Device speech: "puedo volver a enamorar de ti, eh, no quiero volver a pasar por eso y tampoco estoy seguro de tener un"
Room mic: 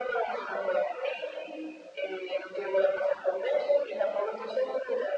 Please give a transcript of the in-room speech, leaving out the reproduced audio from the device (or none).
none